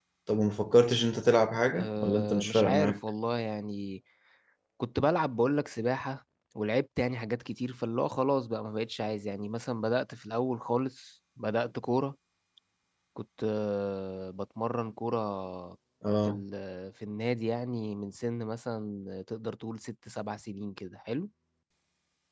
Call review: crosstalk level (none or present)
present